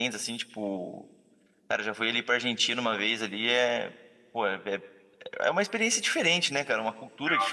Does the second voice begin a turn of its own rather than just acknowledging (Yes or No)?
No